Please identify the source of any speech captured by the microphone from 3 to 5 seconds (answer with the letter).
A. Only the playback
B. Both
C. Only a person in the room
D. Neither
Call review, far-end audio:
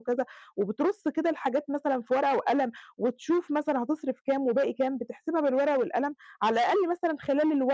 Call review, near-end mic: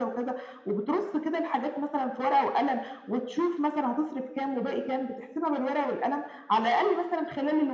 A